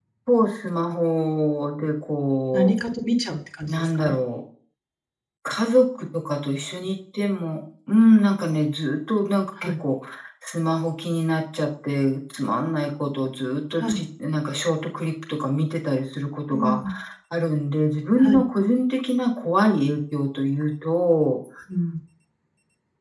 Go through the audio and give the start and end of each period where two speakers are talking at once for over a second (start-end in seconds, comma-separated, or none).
none